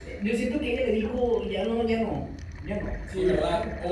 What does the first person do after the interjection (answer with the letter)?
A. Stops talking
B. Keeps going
A